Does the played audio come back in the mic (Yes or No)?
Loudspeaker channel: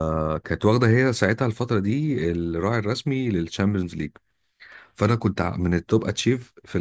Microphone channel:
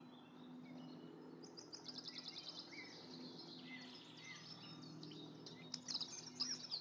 No